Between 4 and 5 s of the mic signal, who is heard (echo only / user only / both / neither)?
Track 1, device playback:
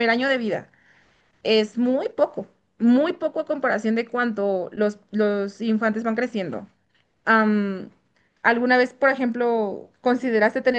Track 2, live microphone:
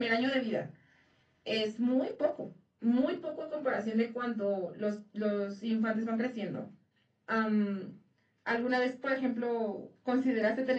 echo only